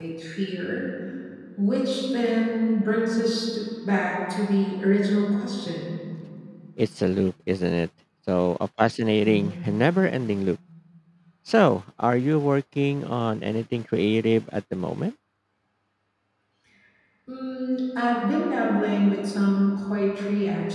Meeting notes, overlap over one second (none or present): none